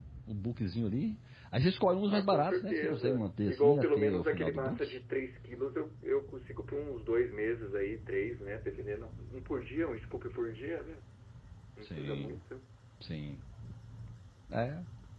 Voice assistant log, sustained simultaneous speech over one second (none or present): present